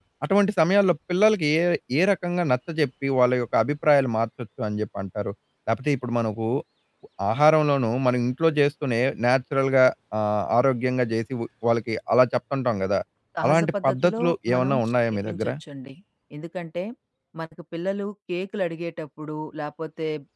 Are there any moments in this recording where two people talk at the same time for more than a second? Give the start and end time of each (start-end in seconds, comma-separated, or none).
13.4-15.5